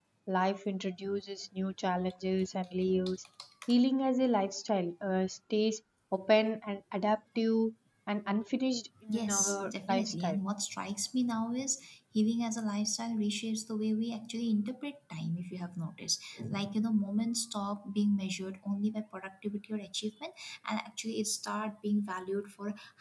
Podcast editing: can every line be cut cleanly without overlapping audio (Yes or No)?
No